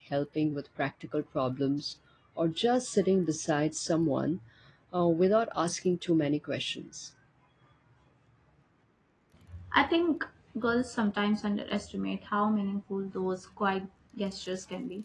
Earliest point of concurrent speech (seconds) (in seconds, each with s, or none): none